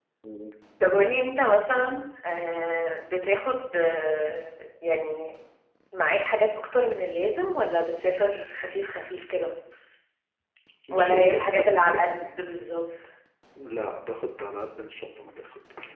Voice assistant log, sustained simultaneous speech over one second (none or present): present